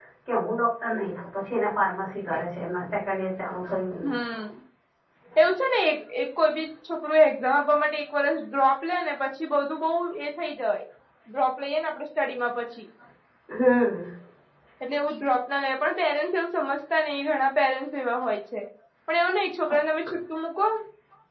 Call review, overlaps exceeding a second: none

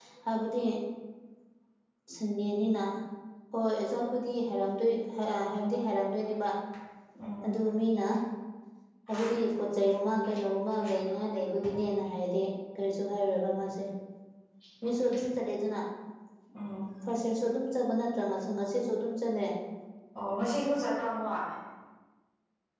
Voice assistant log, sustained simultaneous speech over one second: none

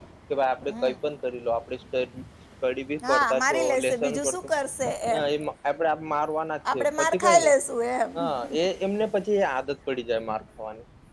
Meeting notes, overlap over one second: present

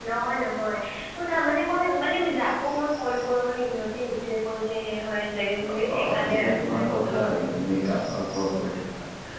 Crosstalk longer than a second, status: present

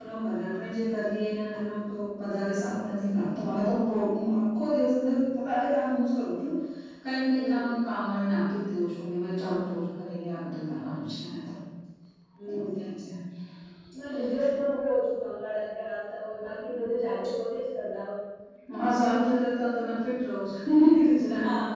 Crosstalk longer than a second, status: none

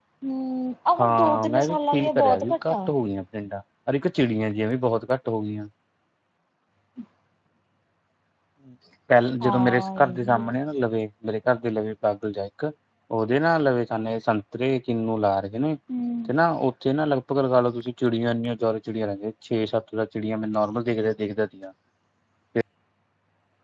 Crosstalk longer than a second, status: present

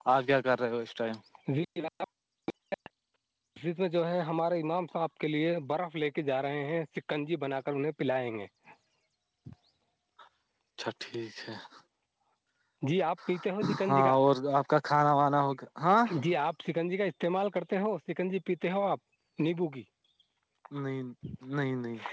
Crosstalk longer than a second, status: none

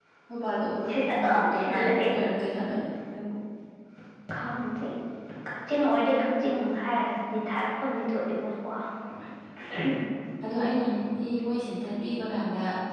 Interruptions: present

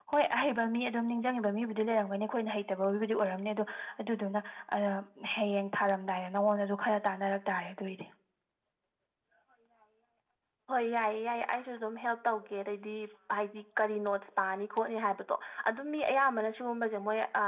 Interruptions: none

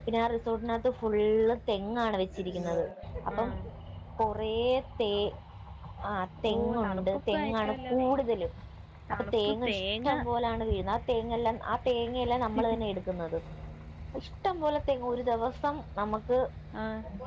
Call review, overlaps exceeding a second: present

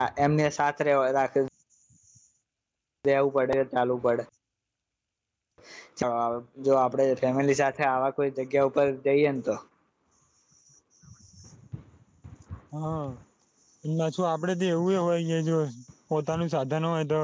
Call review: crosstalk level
none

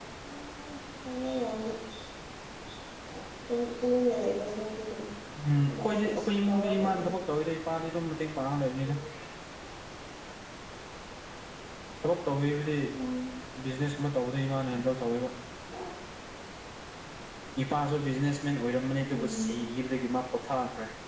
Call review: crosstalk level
present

